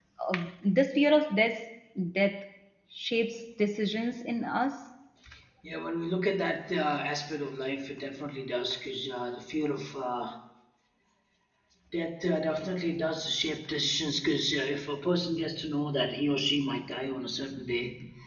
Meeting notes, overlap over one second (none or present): none